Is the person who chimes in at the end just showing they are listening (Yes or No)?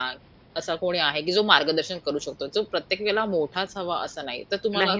No